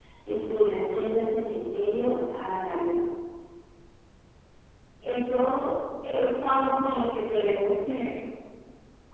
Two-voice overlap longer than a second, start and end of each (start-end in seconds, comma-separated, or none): none